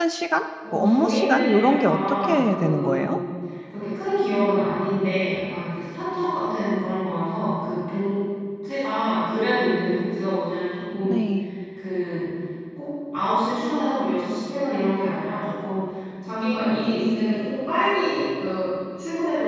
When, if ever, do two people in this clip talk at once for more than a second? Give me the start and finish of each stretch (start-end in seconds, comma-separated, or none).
0.7-3.1